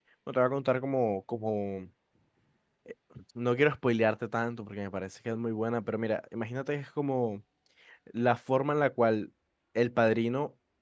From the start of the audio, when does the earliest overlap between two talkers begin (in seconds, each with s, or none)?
none